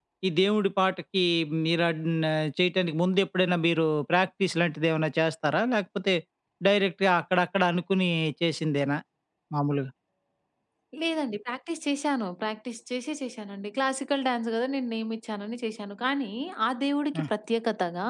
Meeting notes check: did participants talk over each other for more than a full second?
No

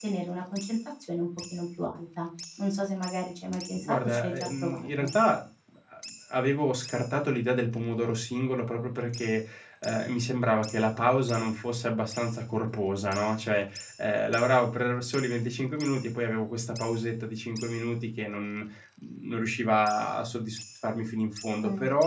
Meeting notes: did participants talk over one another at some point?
Yes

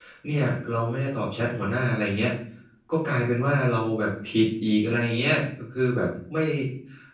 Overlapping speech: No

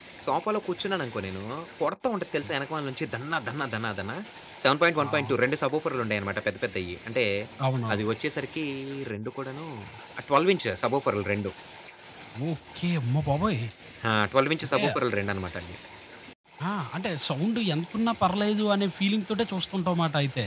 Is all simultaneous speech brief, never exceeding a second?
Yes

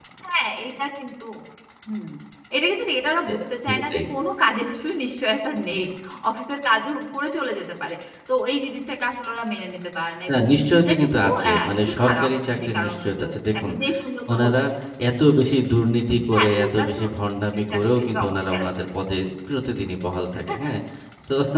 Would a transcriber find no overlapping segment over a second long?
No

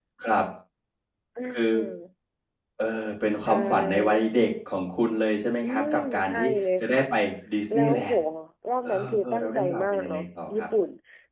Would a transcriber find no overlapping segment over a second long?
No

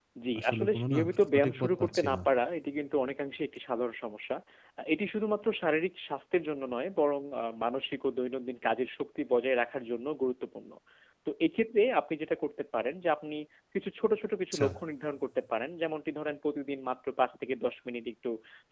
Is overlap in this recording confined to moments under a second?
No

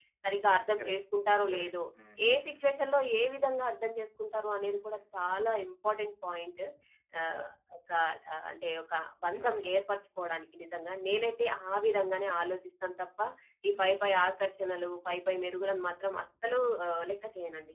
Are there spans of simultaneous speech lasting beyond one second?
No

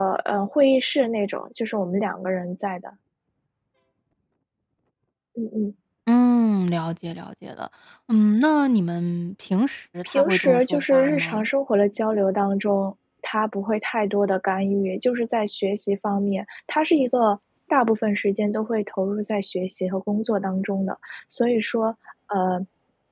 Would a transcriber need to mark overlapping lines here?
Yes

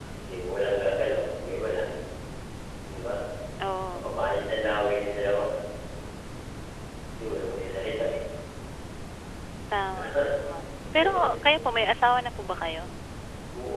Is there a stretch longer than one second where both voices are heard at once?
No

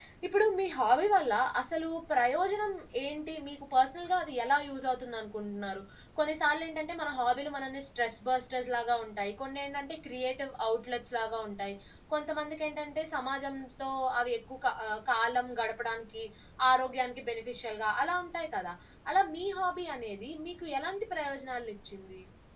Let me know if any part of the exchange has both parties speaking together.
No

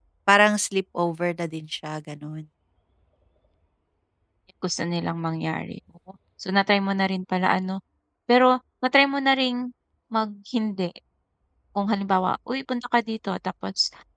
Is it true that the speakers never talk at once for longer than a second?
Yes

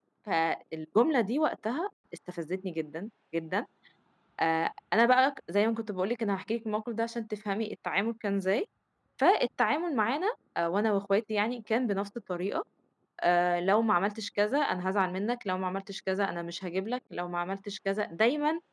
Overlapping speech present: No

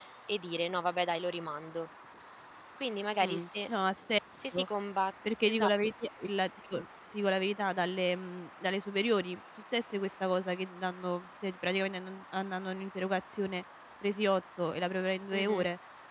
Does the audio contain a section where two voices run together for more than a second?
No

